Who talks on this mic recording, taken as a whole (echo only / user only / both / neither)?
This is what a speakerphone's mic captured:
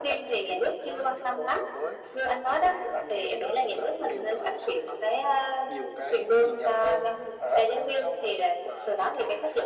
echo only